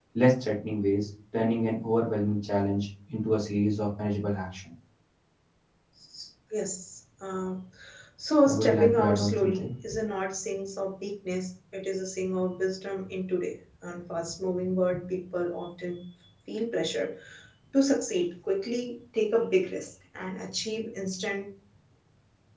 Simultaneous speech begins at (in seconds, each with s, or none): 8.4 s